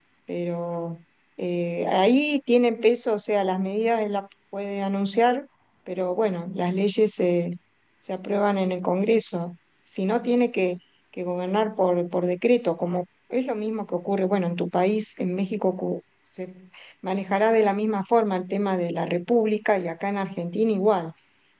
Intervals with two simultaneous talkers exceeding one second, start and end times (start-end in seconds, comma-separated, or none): none